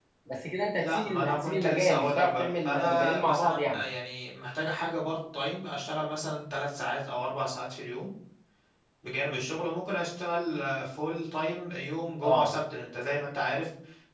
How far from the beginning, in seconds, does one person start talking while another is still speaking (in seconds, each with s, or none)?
0.8 s